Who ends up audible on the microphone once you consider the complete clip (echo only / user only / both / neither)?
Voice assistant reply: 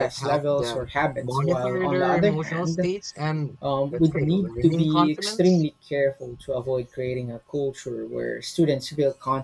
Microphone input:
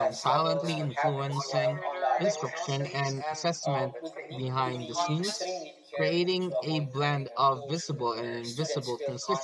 both